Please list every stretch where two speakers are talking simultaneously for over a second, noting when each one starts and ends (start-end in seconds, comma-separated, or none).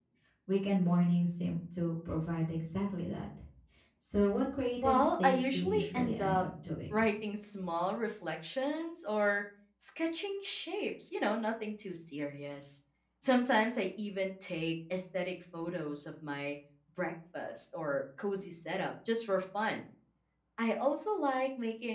4.8-6.4